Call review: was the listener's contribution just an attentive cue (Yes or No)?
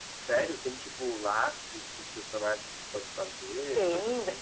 No